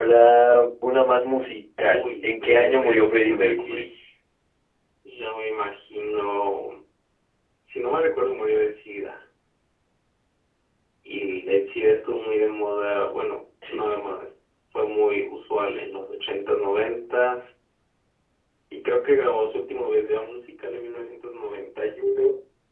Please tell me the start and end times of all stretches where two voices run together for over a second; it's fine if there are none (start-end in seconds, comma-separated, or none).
1.8-3.9